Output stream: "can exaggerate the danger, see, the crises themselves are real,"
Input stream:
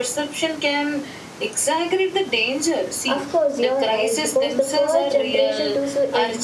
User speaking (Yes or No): Yes